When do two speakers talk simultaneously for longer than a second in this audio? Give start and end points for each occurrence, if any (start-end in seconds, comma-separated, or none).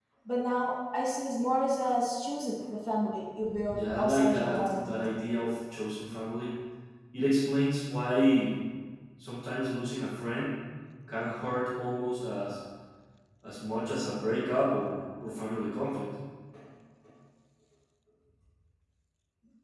3.7-5.0